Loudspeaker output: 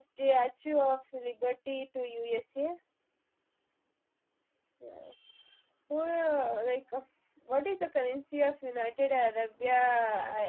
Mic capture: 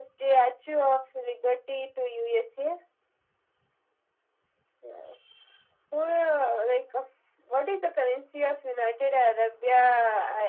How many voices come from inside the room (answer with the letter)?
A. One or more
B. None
B